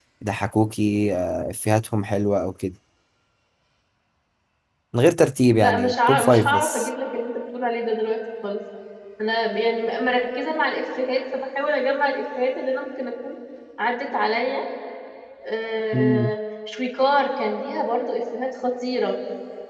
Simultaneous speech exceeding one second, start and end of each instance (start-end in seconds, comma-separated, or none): 5.6-6.9